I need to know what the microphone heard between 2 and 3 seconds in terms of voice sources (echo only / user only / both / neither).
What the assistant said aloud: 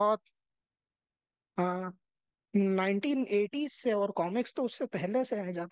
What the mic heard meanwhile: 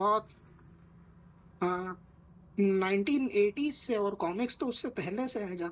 echo only